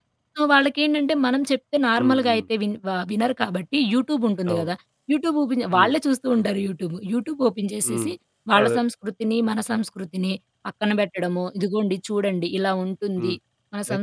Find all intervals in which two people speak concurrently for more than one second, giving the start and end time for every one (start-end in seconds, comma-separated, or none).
none